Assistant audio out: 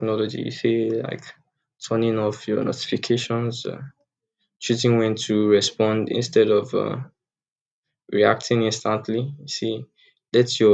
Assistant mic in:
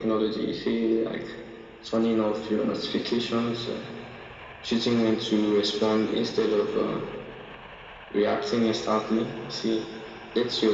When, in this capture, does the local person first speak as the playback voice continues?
none

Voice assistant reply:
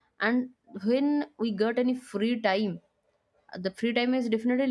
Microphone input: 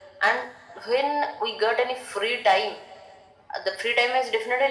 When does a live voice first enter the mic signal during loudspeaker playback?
none

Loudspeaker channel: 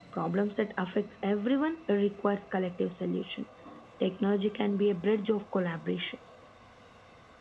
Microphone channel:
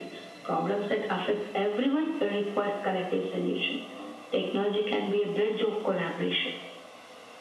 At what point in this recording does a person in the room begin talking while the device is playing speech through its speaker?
none

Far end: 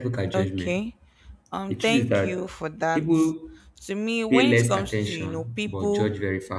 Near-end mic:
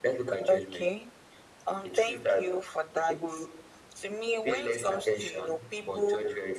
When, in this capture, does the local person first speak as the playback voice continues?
none

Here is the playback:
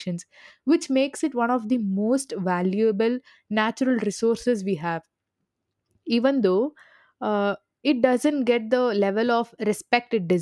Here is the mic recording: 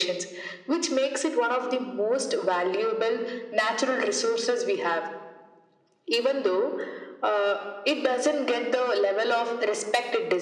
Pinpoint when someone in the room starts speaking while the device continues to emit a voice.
none

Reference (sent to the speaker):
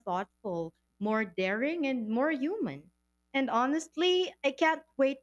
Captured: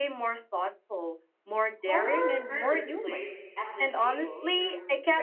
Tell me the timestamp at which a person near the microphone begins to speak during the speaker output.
2 s

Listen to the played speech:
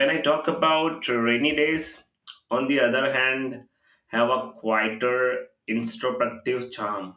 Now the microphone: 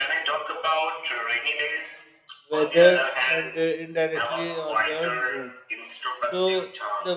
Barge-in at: 3 s

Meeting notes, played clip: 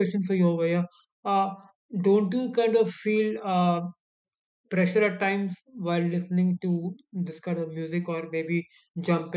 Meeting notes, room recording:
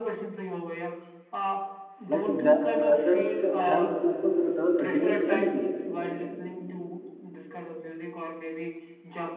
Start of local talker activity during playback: 2 s

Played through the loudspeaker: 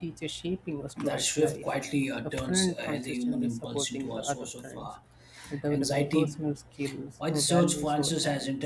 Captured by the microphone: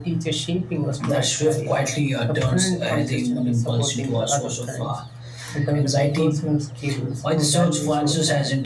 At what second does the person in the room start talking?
none

